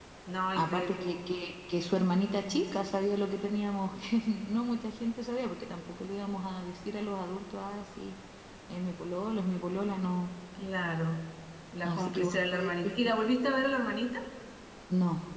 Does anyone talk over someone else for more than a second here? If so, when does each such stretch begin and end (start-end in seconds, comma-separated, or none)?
11.8-13.1